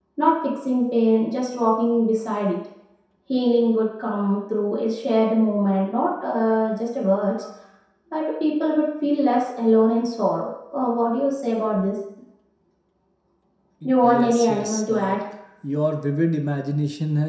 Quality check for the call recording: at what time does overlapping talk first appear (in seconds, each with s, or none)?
13.8 s